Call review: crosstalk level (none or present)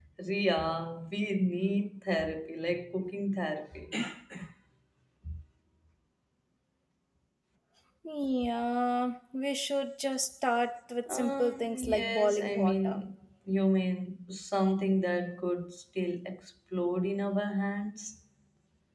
present